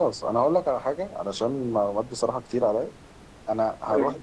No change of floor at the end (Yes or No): Yes